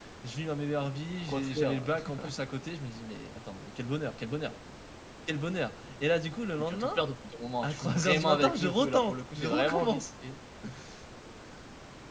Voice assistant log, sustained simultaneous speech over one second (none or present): present